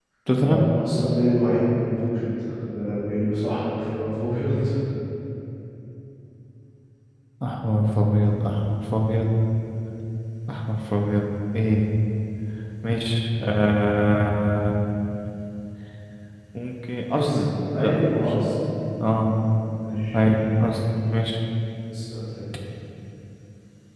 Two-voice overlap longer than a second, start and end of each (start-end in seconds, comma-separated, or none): 17.1-18.4